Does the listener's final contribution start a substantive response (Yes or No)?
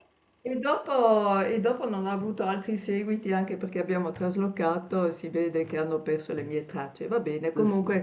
No